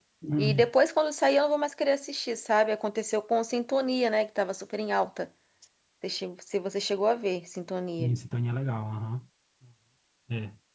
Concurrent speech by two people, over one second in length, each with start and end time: none

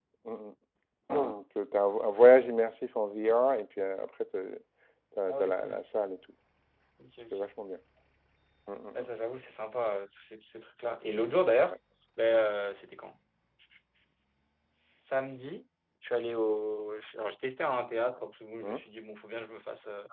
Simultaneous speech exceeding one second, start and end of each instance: none

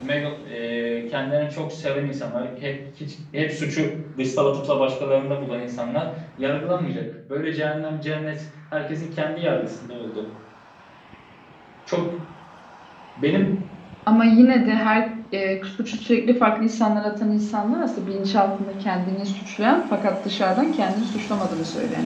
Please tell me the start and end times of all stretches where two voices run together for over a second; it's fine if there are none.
none

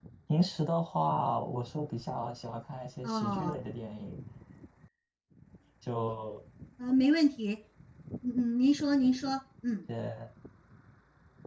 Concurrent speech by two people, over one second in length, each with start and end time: none

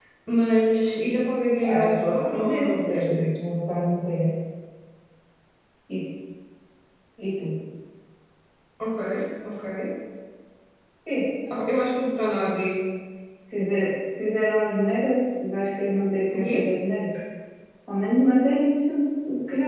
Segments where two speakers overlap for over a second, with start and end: 1.6-3.3

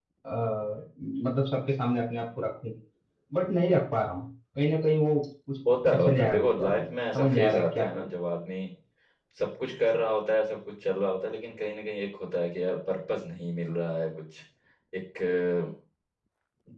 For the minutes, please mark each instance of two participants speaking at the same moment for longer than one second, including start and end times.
5.9-8.1

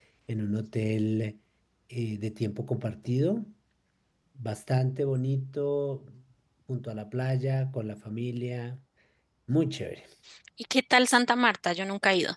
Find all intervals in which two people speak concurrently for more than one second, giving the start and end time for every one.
none

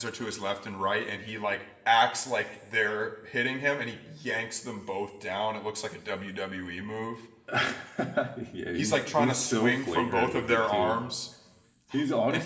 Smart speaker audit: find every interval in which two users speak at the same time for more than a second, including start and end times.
8.8-11.0

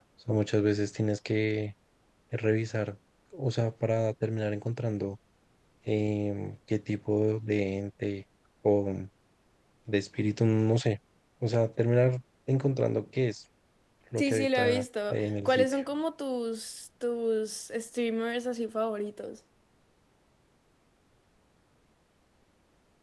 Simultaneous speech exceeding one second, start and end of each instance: 14.2-15.8

